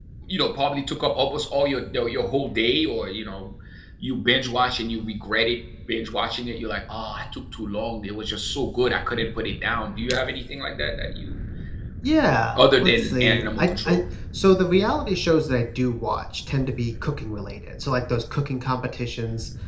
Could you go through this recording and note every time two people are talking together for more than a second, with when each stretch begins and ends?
12.6-14.0

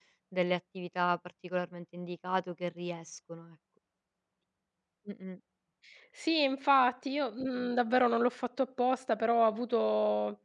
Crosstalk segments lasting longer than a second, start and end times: none

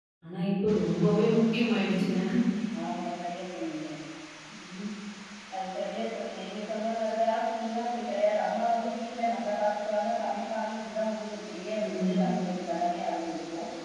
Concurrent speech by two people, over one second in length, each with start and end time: none

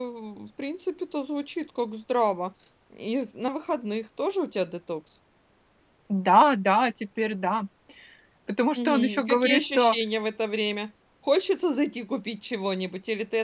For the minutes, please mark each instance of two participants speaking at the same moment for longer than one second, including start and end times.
8.8-9.9

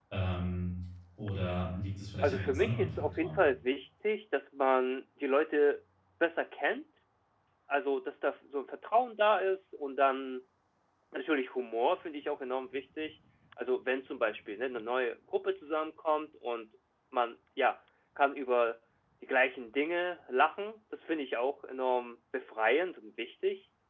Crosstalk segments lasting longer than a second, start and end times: 2.2-3.5

